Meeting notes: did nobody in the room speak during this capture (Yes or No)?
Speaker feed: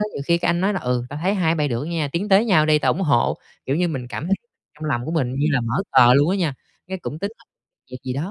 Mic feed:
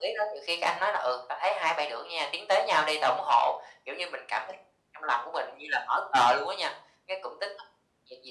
Yes